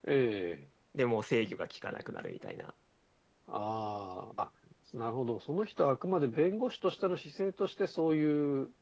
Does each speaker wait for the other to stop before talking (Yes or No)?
Yes